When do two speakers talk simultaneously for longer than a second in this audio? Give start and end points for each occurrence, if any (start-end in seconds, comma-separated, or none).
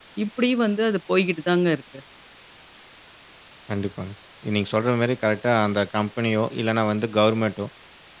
none